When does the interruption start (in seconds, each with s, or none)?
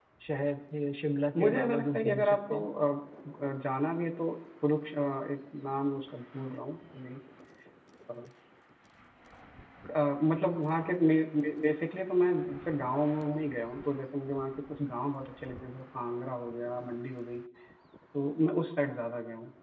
1.4 s